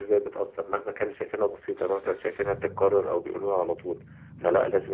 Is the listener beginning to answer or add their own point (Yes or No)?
No